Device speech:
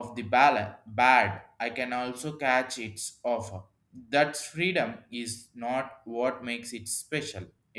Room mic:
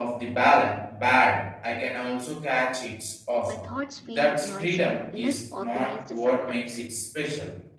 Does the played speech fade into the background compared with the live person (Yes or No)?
No